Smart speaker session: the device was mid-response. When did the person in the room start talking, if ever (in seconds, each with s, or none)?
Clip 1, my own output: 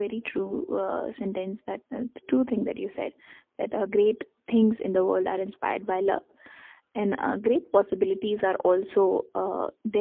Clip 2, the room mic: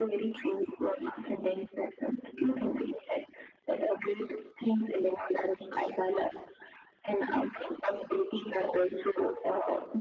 none